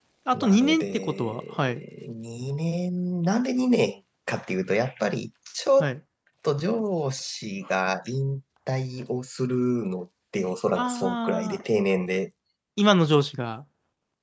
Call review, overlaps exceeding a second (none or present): present